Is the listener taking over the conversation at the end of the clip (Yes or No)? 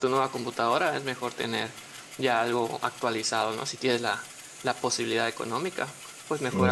No